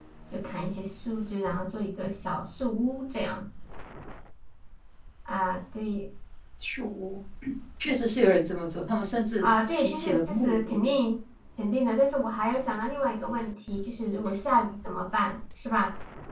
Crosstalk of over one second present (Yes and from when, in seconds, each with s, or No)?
Yes, from 9.4 s